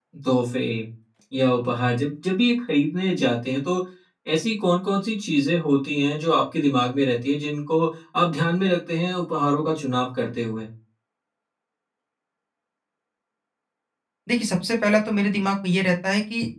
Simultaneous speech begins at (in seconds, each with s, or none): none